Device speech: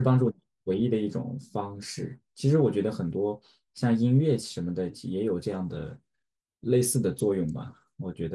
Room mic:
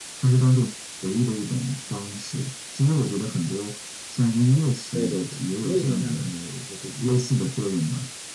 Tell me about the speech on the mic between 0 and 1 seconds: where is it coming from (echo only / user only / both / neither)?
echo only